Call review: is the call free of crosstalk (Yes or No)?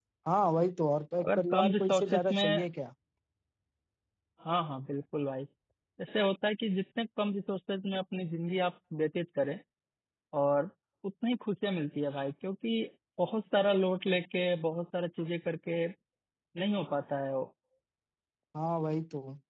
No